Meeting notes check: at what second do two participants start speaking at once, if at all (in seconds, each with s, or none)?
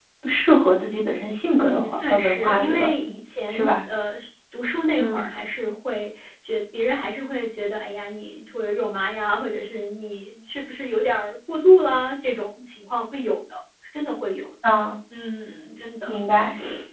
1.5 s